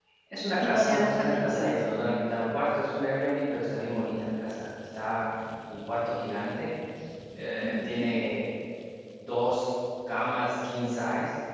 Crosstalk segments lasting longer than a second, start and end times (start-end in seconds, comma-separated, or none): 0.6-1.8